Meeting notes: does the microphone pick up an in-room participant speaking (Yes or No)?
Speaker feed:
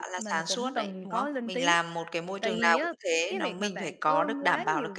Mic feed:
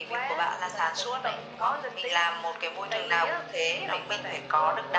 No